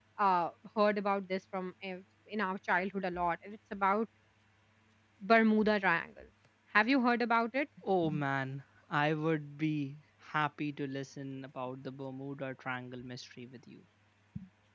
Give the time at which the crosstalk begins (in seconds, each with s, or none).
none